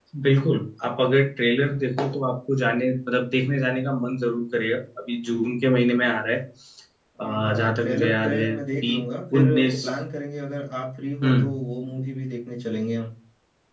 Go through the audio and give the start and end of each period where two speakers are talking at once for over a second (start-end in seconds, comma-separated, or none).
7.2-8.9